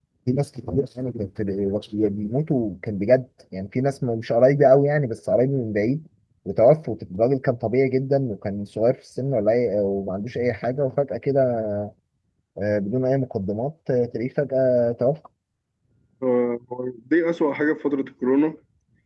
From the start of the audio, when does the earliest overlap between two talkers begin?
none

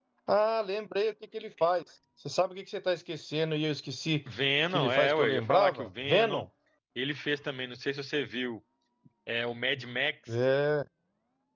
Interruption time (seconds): 5 s

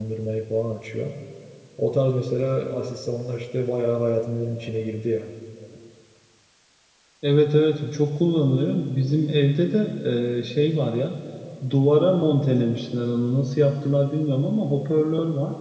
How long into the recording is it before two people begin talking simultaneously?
none

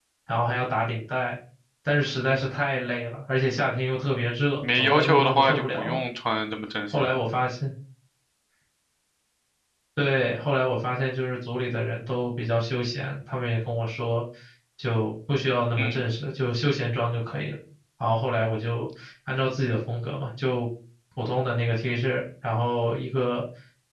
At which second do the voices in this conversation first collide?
5 s

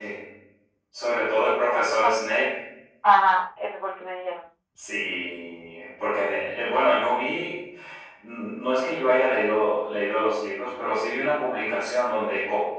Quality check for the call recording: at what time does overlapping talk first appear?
1 s

